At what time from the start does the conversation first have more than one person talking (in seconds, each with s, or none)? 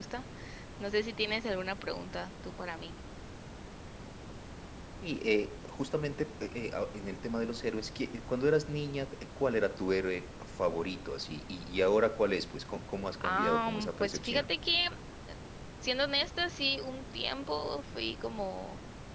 13.2 s